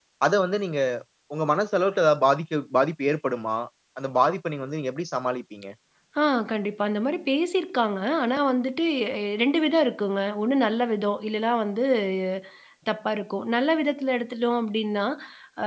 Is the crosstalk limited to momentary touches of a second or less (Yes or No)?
Yes